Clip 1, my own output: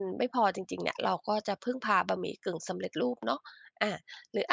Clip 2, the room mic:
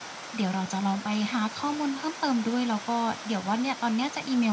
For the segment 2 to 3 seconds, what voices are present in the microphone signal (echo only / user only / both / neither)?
user only